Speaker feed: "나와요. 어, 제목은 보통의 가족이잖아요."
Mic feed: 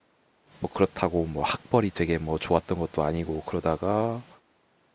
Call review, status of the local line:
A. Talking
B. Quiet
A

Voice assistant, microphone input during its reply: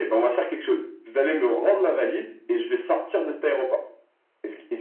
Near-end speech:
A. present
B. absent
B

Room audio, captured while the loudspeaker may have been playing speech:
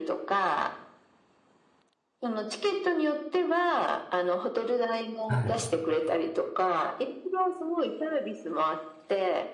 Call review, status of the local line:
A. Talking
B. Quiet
A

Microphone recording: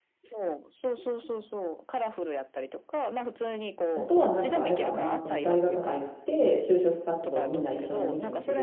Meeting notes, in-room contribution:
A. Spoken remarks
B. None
A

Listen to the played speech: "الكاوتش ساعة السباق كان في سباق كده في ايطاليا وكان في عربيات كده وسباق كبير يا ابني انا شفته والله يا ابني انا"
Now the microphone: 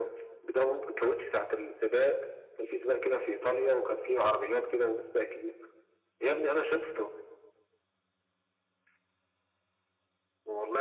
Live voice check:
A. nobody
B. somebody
A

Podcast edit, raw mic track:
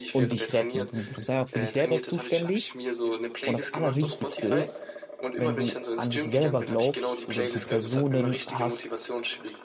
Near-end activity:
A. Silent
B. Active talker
B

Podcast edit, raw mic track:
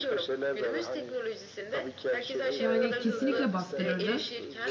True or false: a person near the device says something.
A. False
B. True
B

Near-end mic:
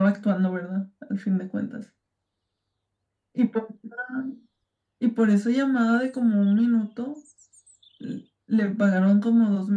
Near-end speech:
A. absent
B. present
A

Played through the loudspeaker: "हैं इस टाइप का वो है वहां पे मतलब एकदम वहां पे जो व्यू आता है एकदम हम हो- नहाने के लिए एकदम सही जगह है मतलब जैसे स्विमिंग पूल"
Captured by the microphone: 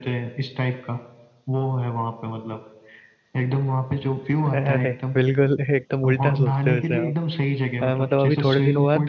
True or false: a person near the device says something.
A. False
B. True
B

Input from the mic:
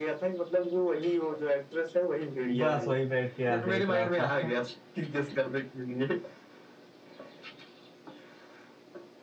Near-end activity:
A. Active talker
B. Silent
A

